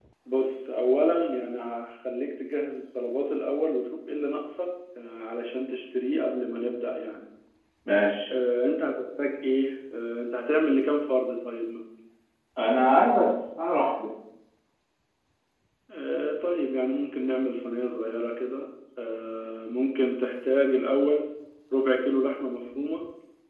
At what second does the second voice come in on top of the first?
none

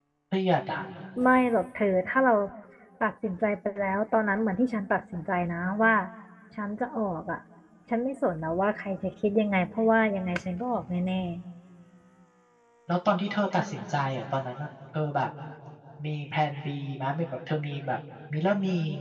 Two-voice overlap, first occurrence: none

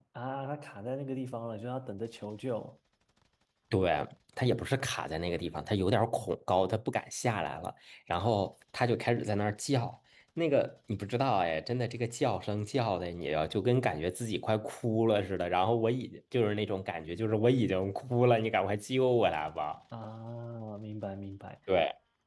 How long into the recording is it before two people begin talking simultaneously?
none

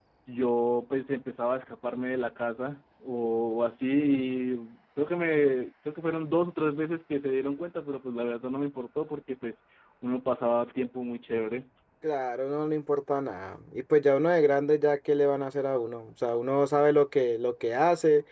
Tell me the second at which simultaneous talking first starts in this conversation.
none

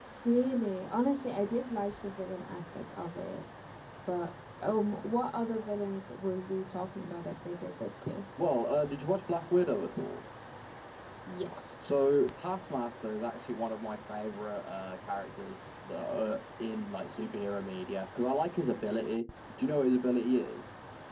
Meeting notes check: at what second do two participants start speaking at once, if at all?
none

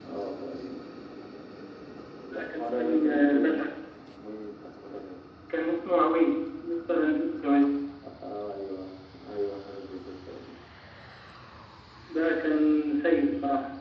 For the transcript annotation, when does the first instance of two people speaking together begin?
2 s

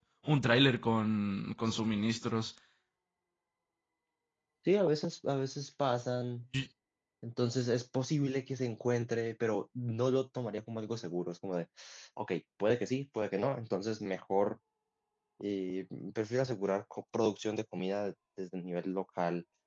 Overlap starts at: none

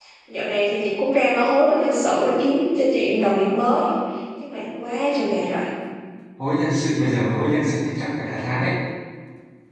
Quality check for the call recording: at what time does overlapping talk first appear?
none

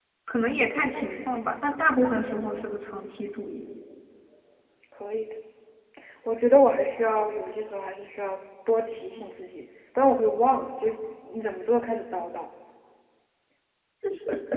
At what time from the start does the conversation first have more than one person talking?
none

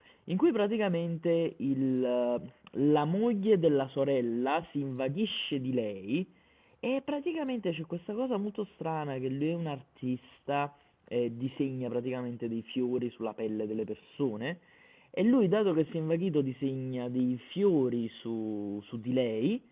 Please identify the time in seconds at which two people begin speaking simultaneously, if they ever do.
none

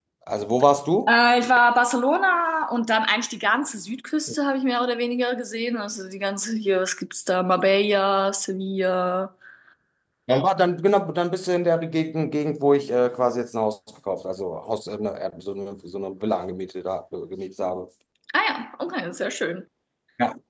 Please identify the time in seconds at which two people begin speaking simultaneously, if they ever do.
none

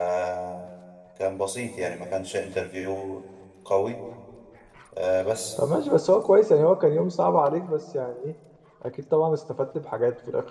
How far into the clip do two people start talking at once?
none

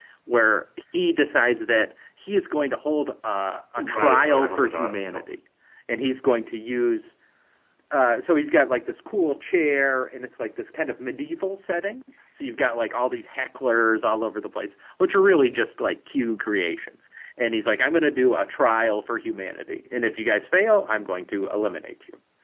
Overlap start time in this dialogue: 4 s

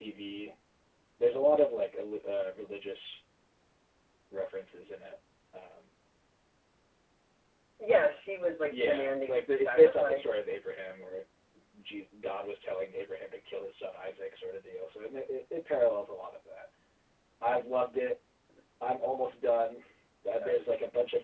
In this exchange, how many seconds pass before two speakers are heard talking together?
9 s

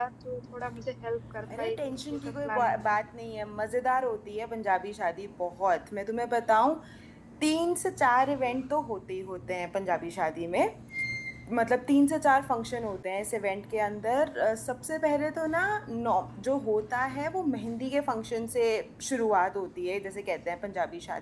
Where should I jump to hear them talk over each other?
2 s

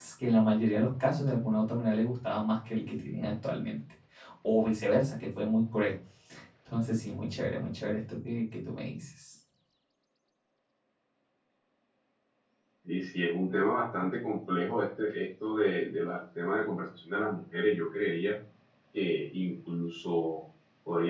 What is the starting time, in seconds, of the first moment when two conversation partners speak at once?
none

